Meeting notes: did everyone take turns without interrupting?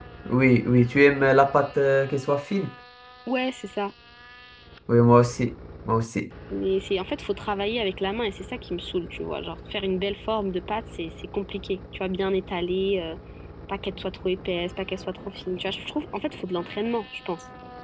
Yes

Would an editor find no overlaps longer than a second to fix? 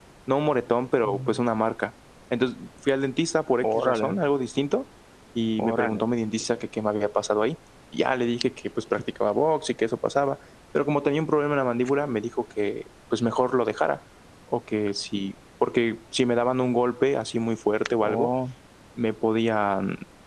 Yes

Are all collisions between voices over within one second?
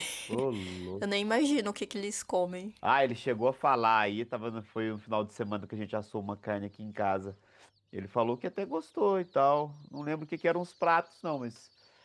Yes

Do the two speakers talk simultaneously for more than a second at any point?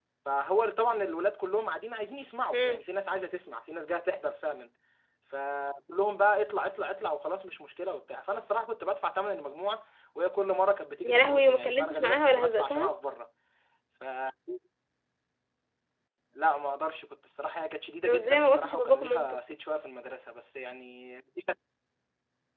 Yes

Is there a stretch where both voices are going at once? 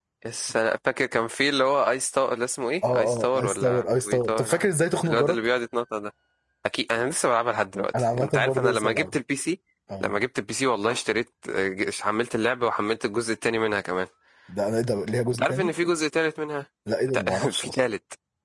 Yes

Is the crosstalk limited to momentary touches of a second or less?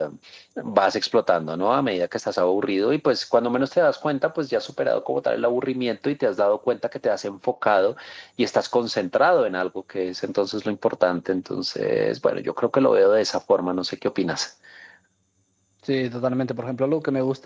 Yes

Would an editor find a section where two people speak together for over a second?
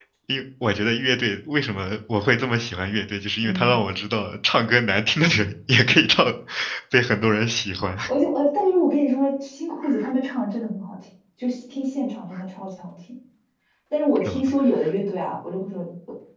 No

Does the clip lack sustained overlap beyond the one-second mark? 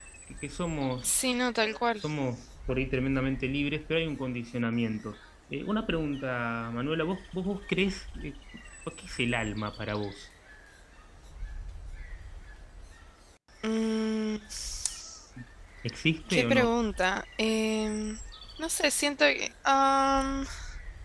Yes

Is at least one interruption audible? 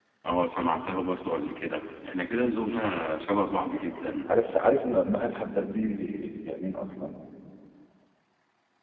No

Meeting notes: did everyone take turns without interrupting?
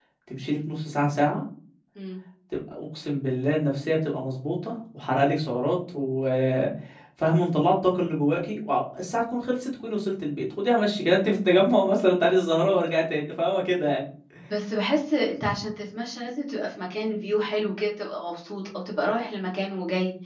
Yes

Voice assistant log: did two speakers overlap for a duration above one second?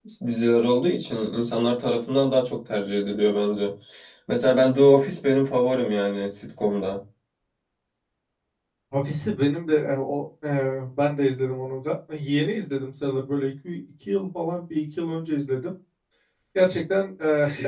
No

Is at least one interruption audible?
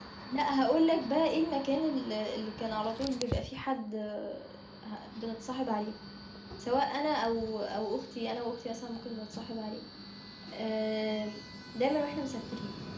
No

